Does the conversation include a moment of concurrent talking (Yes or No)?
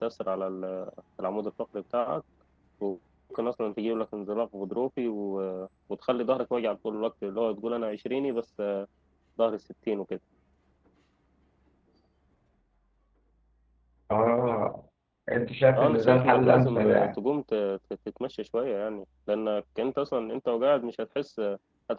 Yes